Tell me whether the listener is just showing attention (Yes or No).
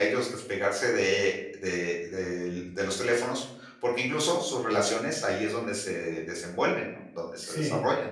No